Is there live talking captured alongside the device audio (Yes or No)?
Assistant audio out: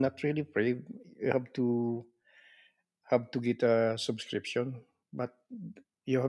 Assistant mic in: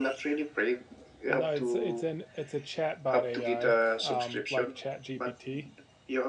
Yes